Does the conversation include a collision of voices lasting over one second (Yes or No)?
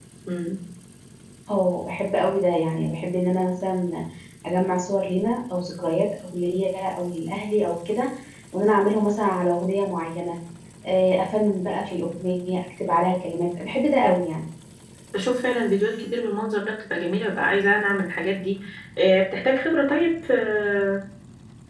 No